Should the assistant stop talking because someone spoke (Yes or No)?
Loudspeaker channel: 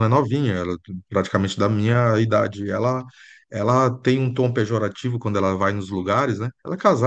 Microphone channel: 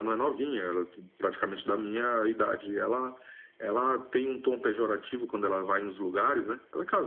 No